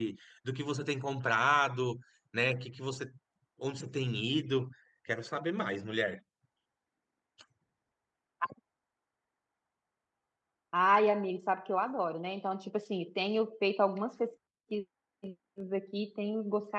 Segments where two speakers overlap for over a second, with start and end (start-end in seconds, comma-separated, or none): none